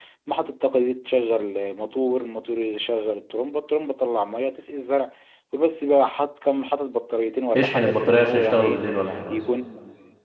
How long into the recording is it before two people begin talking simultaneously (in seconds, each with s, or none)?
7.5 s